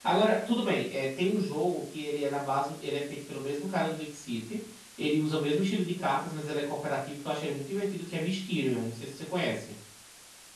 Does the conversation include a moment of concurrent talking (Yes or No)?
No